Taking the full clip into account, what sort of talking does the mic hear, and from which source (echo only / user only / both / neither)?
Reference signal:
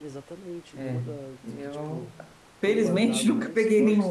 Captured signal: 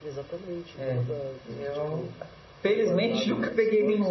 echo only